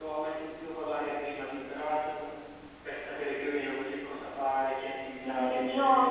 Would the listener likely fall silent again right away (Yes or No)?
No